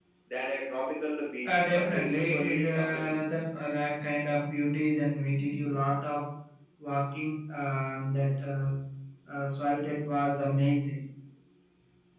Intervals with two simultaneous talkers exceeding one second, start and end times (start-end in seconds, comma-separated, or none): 1.4-3.2